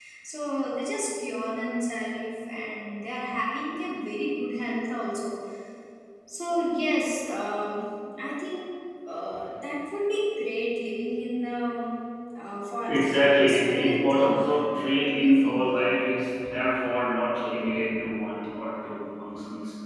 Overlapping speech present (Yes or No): Yes